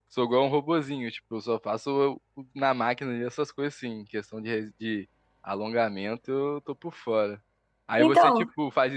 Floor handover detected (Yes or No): No